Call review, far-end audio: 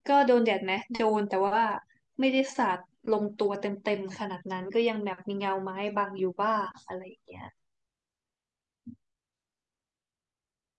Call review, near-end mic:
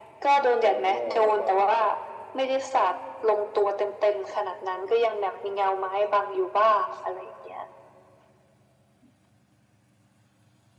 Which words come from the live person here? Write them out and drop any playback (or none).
มันโล่งๆแล้วก็